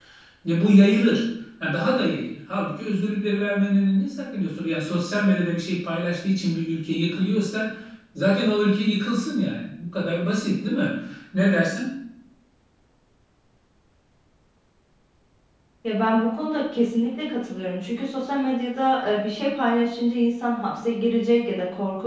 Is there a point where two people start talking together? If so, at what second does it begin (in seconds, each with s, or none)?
none